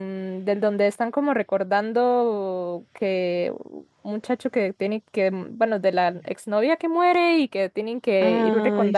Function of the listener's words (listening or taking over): listening